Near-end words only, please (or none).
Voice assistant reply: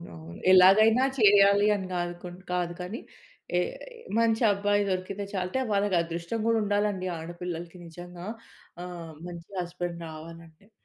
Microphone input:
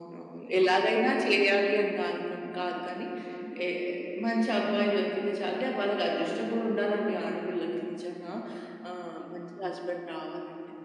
none